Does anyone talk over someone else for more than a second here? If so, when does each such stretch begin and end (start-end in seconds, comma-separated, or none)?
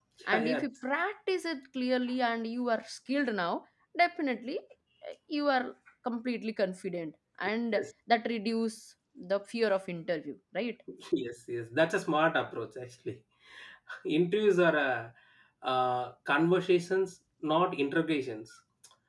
none